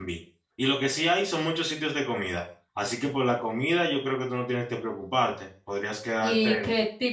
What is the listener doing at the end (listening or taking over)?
taking over